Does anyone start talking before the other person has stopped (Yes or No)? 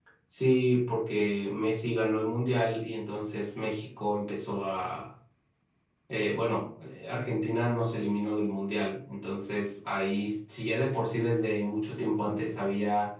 No